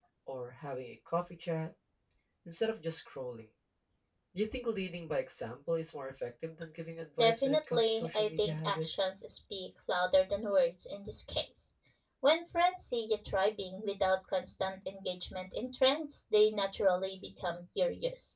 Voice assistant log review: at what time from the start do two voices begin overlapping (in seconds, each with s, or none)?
7.2 s